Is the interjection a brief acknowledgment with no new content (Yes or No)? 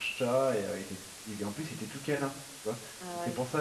Yes